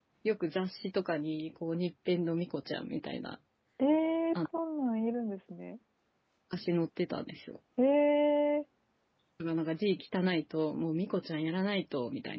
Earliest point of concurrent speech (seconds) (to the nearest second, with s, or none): none